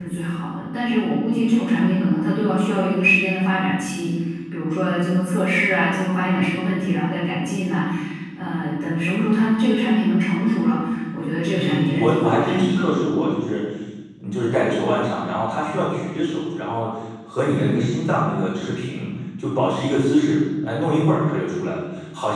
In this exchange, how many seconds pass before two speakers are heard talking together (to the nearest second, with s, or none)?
12 s